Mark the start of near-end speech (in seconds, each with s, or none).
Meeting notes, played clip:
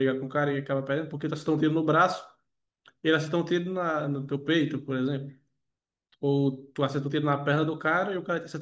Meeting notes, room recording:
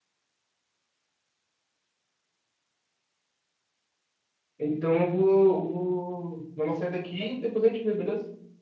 4.6 s